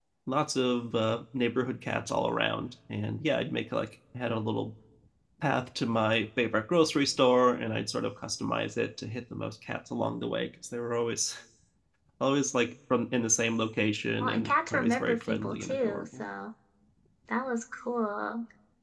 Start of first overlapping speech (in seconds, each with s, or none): 14.2 s